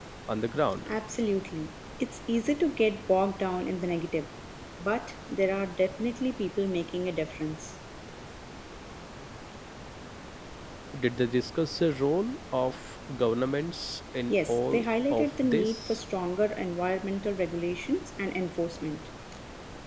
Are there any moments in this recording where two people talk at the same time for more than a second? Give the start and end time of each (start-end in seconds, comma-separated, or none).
14.3-16.0